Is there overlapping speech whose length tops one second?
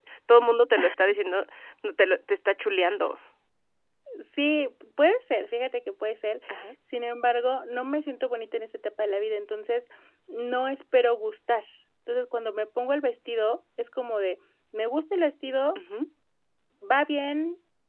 No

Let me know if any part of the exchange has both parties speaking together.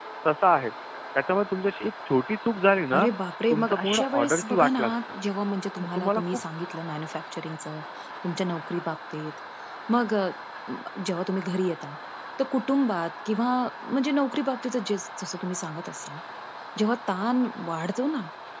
Yes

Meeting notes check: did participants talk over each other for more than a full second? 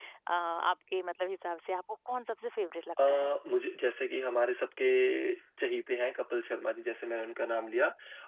No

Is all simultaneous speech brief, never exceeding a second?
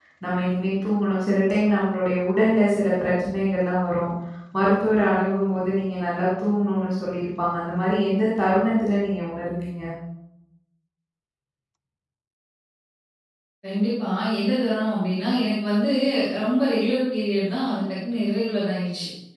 Yes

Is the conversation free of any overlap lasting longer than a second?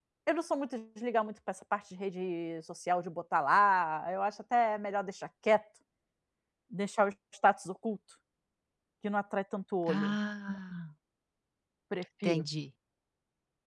Yes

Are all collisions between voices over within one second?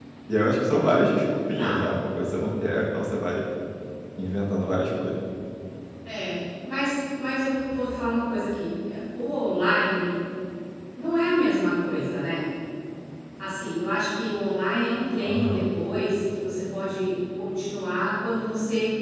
Yes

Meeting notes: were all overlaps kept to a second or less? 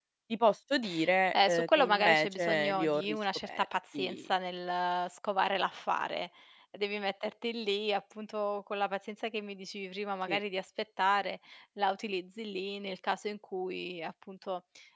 No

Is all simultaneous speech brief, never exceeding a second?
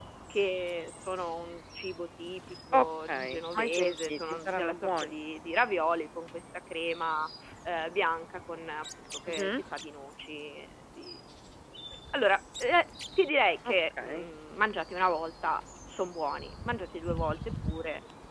No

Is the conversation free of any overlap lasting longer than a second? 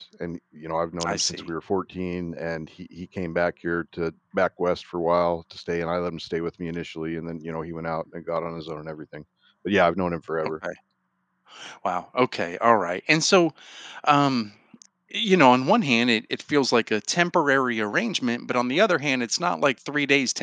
Yes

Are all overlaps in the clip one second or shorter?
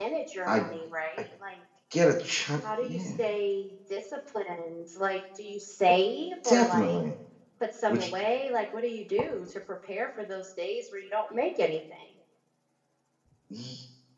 Yes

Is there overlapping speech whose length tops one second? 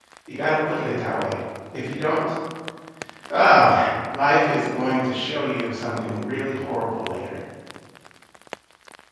No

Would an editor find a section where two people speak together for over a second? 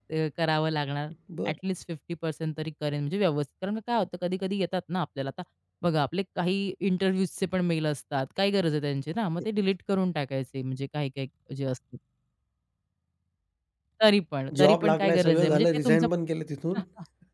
Yes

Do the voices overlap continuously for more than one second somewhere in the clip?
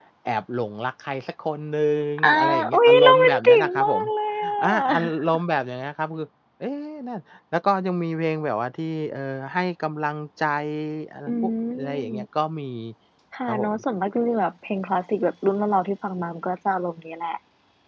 Yes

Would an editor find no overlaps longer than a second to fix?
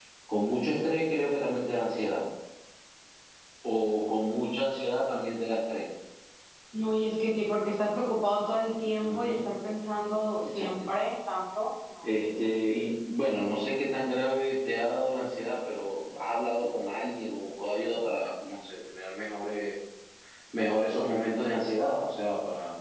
Yes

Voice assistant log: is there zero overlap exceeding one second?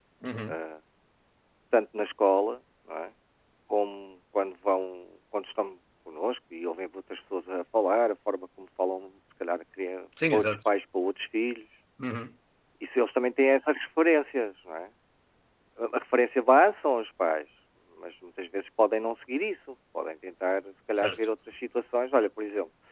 Yes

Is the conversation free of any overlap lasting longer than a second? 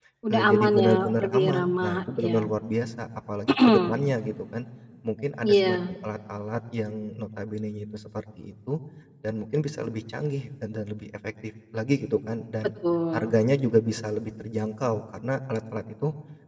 No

